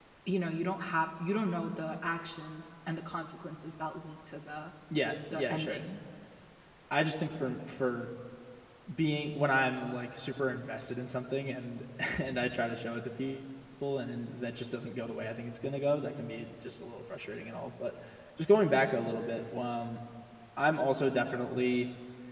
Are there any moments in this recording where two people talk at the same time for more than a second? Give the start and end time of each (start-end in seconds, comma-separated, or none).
none